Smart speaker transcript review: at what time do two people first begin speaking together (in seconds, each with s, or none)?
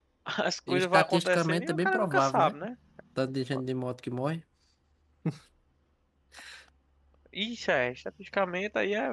0.7 s